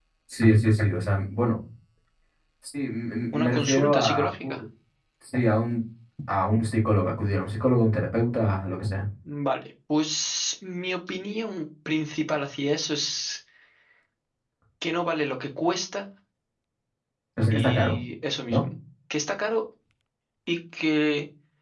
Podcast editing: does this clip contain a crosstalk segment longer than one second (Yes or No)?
Yes